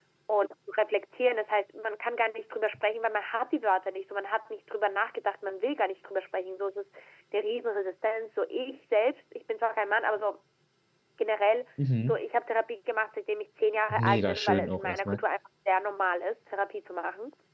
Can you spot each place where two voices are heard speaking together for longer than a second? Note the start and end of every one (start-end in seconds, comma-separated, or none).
13.9-15.2